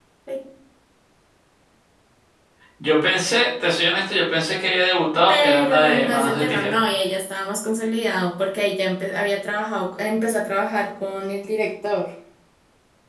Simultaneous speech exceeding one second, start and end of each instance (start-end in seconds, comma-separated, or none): 5.3-6.8